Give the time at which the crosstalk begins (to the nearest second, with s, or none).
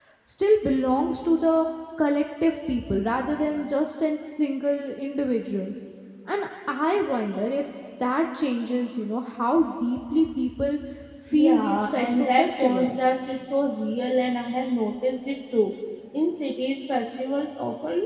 11 s